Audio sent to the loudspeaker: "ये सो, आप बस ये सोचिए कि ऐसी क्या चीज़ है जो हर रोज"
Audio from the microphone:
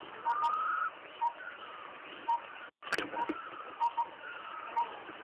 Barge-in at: none

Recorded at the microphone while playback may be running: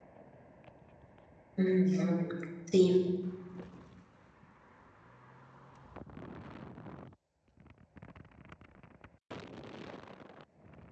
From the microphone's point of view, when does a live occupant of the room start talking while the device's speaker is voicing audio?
1.6 s

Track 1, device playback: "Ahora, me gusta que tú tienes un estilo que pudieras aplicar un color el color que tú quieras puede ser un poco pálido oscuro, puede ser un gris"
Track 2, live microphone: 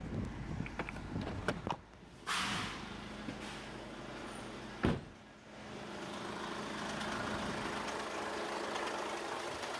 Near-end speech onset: none

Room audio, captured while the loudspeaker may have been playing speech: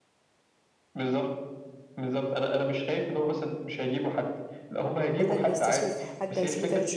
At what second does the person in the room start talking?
5.2 s

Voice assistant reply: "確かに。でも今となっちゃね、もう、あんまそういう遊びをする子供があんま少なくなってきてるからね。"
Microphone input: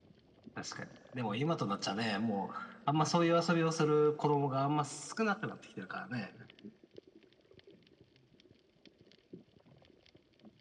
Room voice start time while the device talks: none

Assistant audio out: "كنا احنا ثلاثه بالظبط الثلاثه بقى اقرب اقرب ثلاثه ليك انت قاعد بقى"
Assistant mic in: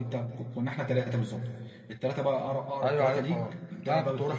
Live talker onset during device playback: 2.8 s

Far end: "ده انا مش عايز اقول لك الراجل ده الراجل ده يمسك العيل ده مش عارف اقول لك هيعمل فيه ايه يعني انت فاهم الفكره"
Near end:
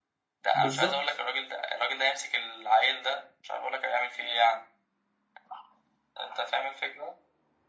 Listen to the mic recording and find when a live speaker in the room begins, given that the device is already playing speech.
0.5 s

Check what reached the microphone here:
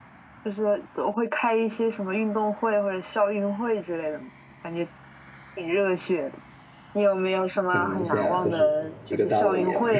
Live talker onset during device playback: 7.7 s

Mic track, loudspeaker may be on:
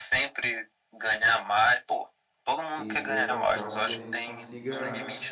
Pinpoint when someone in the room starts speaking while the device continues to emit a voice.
2.8 s

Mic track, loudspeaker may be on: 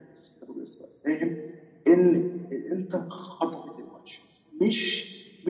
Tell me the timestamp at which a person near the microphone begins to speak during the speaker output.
none

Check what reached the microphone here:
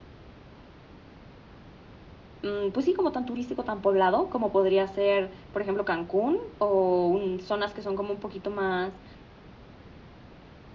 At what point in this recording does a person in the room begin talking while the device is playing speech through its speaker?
2.4 s

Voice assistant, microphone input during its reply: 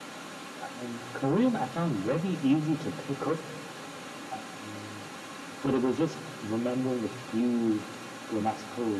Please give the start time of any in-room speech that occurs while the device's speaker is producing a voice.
none

